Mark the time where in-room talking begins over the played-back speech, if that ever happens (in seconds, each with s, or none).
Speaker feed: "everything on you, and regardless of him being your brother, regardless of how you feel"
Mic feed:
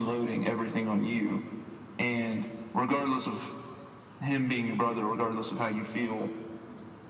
none